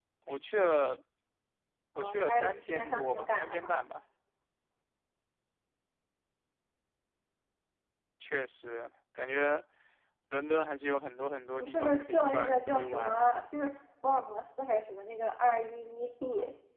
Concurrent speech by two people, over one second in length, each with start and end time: 2.0-3.8, 11.6-13.2

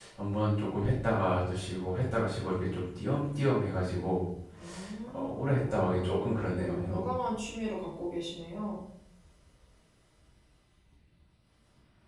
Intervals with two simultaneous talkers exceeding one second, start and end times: 5.1-7.0

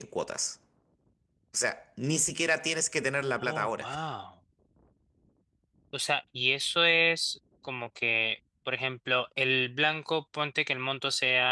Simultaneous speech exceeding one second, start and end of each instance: none

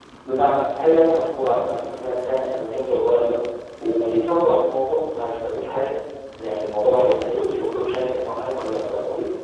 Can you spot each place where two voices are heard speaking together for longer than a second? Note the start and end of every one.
none

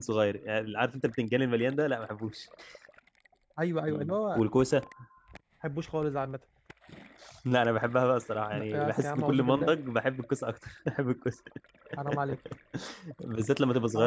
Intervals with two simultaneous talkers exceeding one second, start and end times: 8.5-9.7

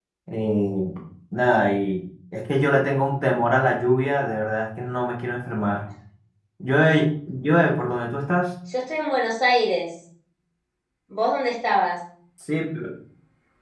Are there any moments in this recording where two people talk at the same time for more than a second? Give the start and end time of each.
none

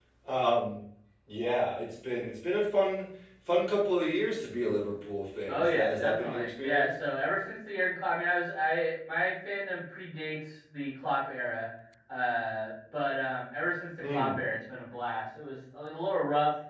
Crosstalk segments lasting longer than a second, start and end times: 5.5-6.9

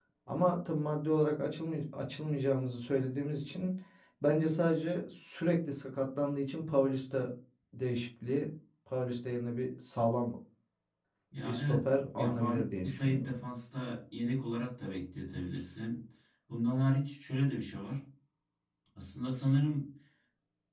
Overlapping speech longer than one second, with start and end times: 11.4-13.3

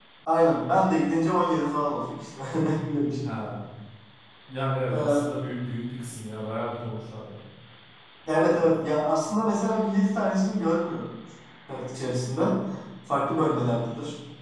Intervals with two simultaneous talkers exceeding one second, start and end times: none

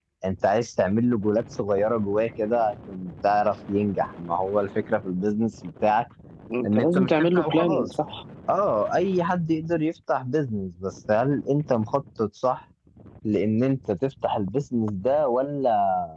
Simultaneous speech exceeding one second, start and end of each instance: 6.7-7.9

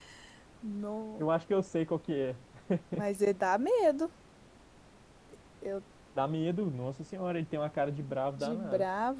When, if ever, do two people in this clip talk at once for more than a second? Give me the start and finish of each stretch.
none

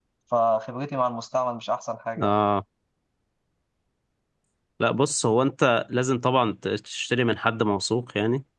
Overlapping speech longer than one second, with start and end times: none

